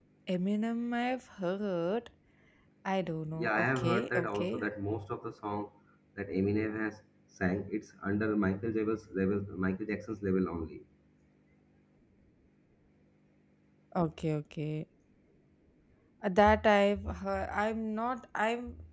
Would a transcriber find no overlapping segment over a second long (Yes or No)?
No